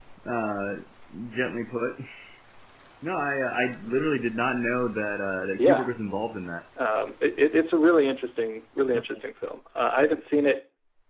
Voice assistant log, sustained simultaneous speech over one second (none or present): none